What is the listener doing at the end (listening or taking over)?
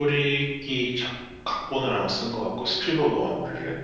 taking over